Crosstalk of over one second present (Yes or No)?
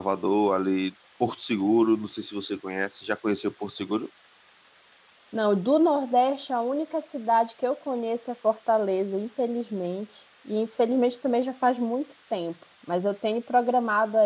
No